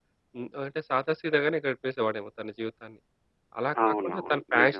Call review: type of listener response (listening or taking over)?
listening